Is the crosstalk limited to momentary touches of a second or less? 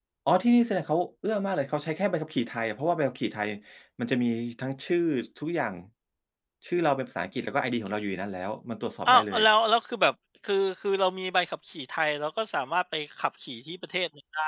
Yes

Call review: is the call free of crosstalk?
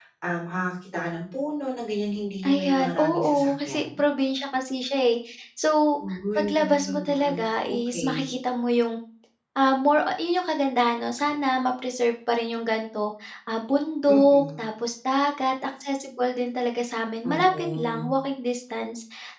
No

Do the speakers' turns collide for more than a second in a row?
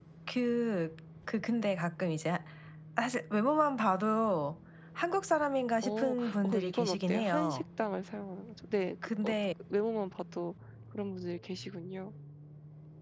Yes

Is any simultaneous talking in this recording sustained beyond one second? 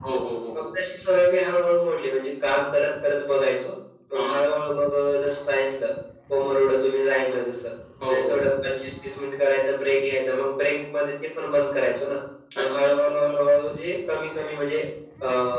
No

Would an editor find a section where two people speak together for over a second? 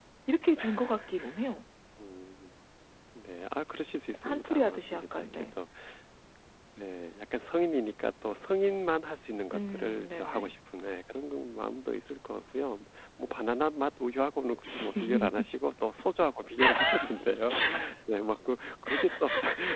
Yes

